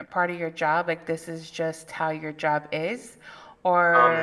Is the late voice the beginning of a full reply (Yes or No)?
Yes